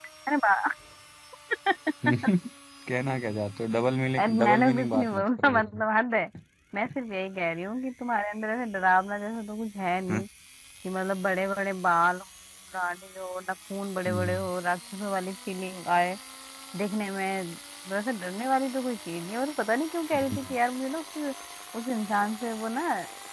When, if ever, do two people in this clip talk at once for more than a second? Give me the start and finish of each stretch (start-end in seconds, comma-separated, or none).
4.2-5.8